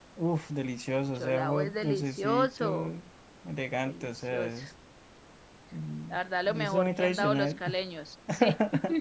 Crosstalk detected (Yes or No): Yes